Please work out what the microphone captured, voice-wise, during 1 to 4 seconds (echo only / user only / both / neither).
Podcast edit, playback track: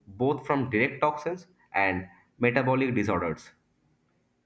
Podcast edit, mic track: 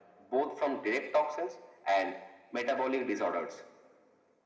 echo only